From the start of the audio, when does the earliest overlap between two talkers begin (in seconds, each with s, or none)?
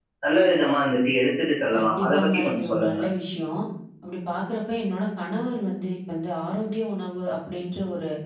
1.7 s